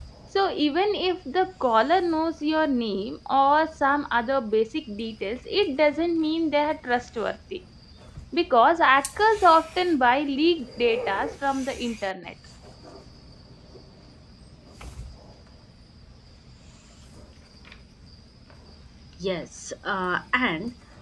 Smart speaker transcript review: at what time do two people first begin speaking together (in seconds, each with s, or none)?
none